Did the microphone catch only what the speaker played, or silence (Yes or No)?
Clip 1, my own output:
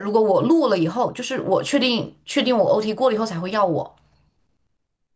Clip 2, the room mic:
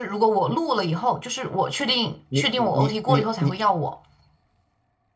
No